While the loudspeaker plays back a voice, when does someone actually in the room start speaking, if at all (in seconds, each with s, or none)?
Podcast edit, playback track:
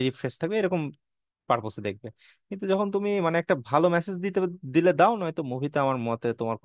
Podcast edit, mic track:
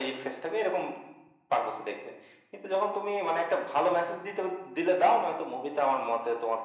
none